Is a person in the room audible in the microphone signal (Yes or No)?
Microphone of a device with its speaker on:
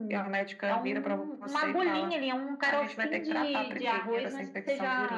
No